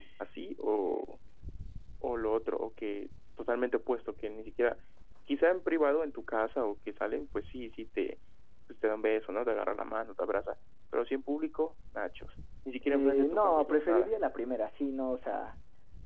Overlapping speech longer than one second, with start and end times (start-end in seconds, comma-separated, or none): 12.9-14.1